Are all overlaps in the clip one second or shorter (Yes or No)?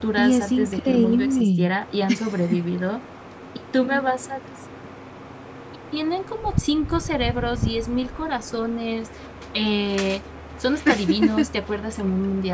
No